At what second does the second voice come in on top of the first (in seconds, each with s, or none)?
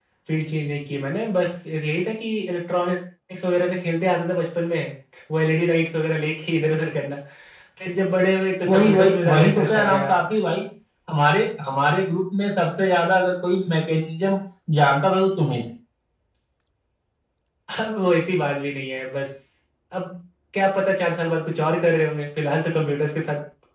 8.7 s